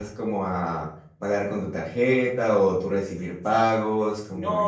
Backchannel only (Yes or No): No